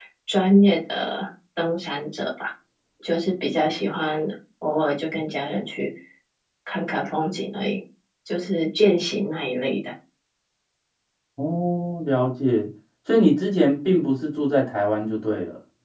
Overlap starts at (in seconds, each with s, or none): none